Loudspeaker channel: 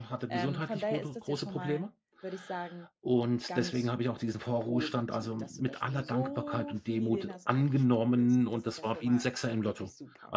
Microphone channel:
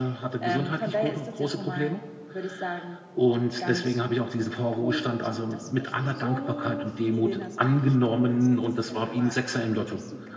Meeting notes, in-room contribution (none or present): none